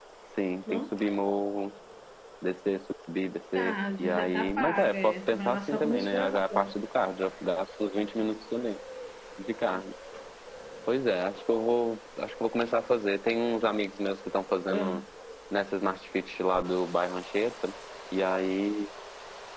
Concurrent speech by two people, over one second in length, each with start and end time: 3.6-6.7

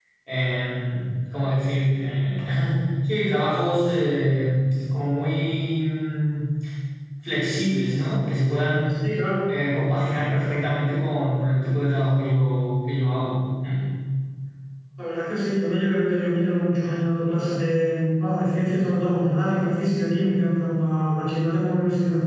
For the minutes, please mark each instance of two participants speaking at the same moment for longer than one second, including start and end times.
none

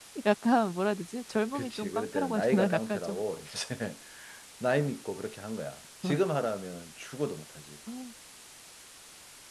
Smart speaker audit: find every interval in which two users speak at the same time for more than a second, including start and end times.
1.5-3.2

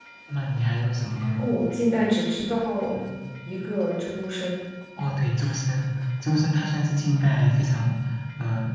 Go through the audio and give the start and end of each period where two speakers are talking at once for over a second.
none

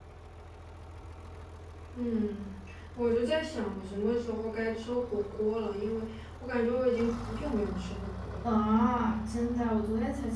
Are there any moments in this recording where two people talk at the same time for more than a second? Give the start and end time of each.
none

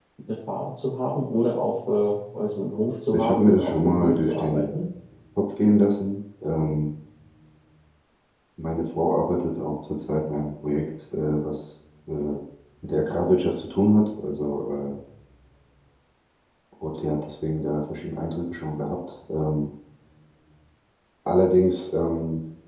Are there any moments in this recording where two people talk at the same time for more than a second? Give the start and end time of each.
3.1-4.7

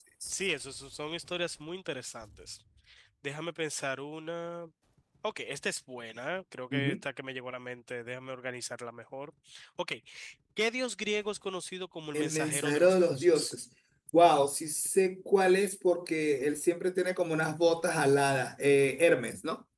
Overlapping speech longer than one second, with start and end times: 12.1-13.5

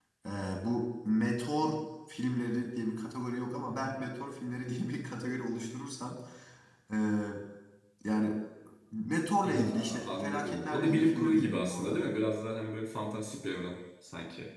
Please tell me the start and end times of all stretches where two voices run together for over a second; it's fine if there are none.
9.4-12.0

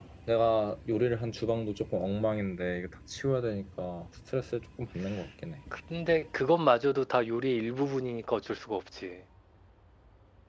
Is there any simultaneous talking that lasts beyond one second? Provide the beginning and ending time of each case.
none

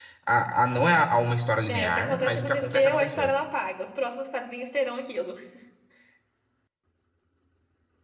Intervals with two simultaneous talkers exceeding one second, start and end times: 1.7-3.3

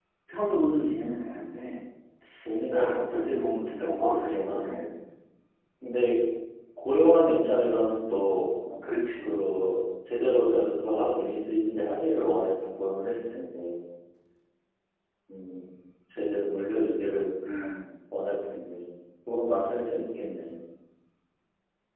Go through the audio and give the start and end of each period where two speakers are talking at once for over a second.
2.7-4.9

